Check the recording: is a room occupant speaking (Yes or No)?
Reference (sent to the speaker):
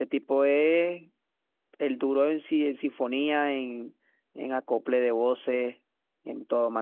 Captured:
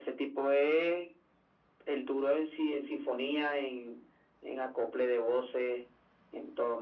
No